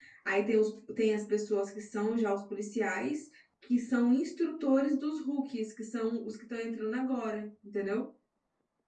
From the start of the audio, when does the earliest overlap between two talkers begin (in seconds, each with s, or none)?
none